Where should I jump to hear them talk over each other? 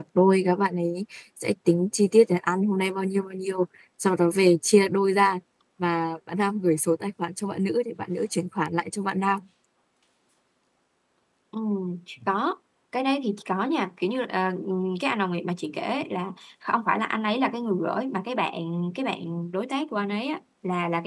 none

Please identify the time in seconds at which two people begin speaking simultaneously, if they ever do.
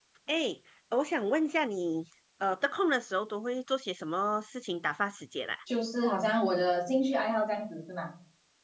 none

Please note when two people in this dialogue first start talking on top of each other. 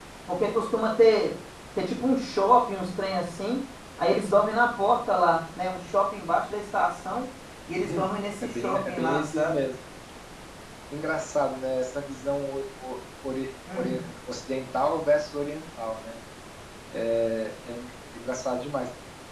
7.7 s

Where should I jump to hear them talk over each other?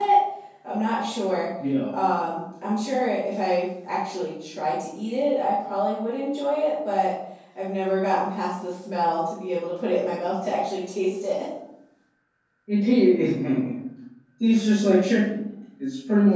none

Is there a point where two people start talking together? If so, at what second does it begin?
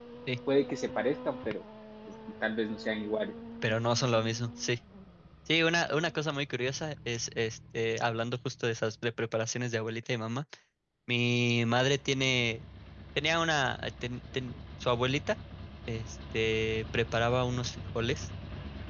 none

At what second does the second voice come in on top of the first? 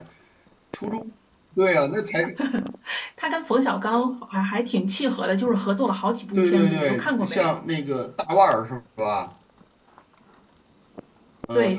6.4 s

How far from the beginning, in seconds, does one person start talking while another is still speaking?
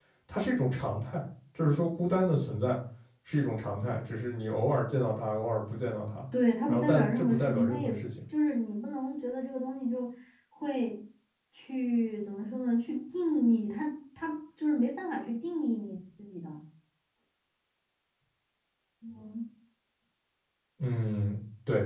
6.7 s

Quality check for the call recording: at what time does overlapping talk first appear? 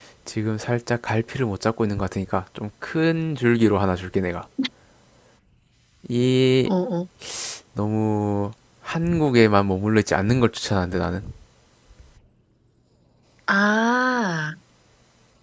none

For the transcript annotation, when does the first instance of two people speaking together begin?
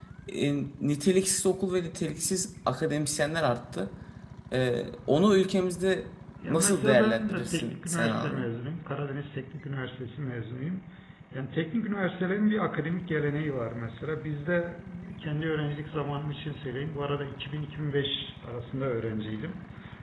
6.4 s

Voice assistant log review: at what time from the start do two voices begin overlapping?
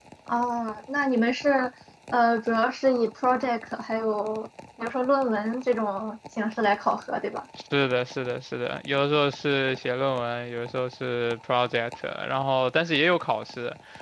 none

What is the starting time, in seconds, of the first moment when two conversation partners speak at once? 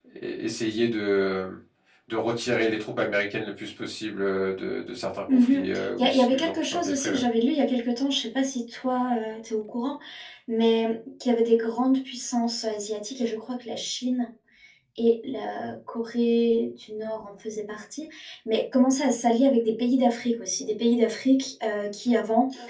5.3 s

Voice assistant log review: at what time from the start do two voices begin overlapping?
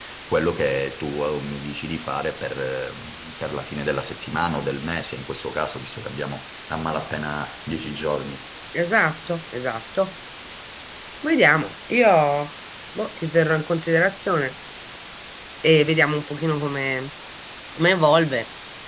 none

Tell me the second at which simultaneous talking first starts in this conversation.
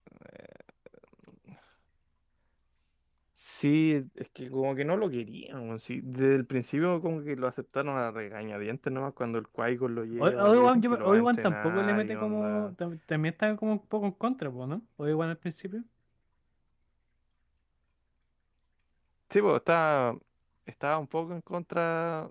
10.1 s

